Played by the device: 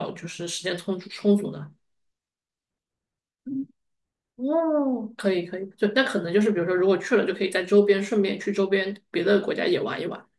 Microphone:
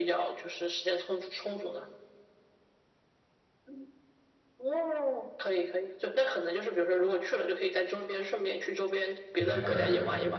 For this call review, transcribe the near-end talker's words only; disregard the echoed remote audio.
应该是可以的。

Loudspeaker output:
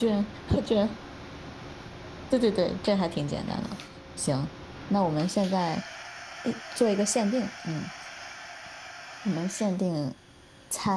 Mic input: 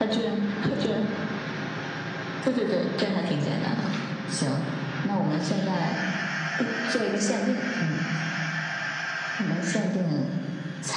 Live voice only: none

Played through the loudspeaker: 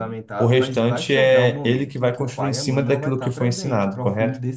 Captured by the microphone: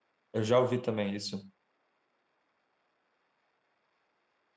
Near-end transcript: Eu já ouvi também isso.

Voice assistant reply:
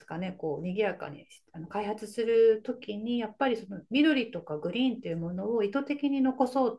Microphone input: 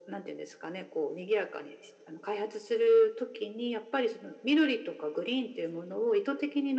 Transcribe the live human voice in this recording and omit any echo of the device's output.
none

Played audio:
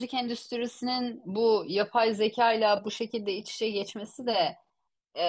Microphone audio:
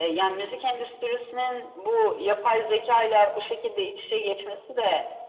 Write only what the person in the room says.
none

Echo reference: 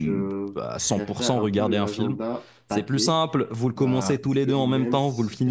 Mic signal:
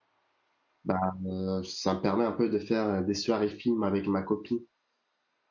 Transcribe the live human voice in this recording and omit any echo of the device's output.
Bah, euh, ça me permet un peu de faire euh, des soirées films avec ma copine.

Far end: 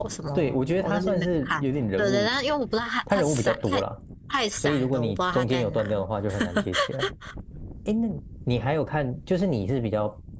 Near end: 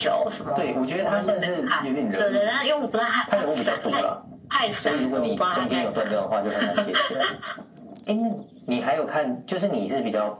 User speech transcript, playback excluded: none

